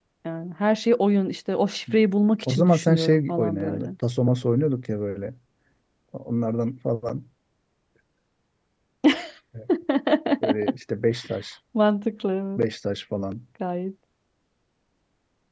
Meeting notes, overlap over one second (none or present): present